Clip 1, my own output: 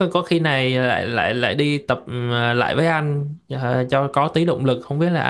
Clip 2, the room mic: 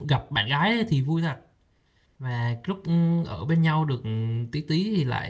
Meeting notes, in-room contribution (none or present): present